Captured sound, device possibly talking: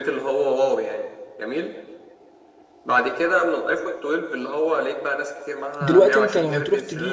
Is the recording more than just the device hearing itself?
Yes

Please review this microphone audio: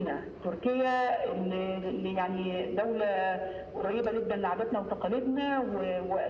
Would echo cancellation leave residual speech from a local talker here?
No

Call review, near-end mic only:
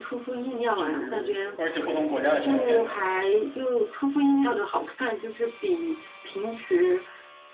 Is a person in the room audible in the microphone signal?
Yes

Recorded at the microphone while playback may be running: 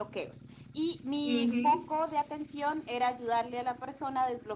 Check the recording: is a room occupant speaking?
Yes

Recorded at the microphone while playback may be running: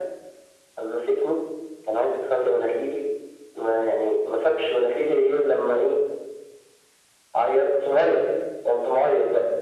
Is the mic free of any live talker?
Yes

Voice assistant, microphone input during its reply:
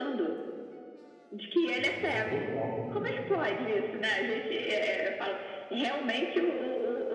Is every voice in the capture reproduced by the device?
No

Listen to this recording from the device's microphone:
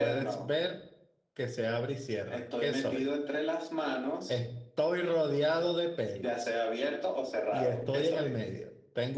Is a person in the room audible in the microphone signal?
Yes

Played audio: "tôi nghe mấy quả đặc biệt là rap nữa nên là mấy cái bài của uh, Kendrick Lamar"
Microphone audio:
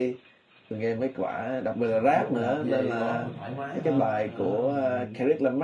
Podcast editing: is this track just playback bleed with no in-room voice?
No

